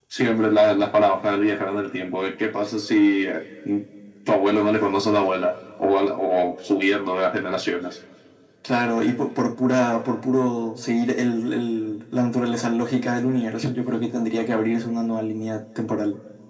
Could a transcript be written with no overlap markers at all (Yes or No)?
Yes